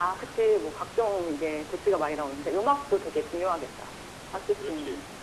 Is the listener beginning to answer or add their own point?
Yes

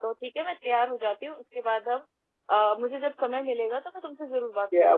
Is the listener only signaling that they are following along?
No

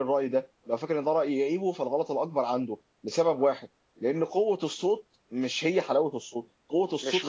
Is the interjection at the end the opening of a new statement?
No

